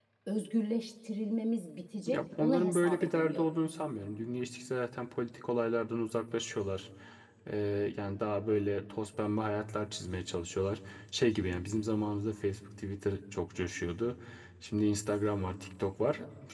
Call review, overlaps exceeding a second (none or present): present